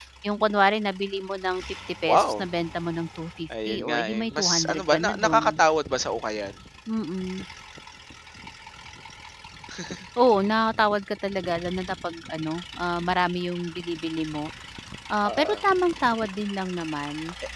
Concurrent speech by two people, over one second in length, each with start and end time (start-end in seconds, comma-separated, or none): 3.7-5.6